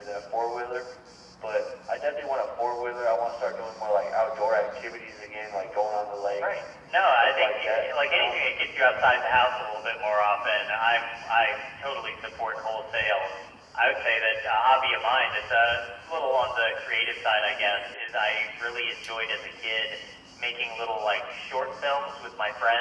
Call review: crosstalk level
present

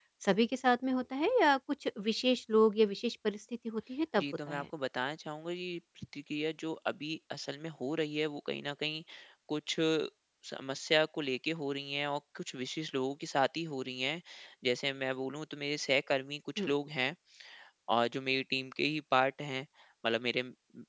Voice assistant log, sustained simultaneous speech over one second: none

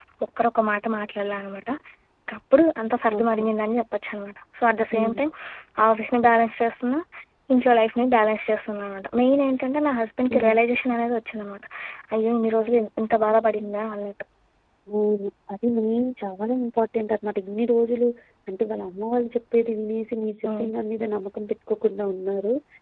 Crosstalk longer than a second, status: none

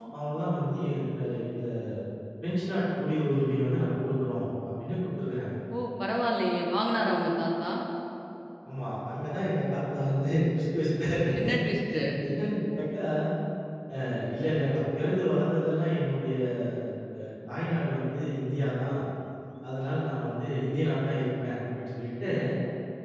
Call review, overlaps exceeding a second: none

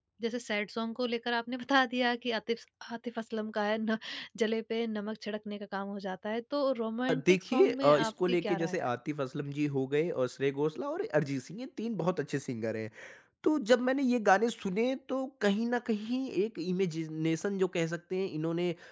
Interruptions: present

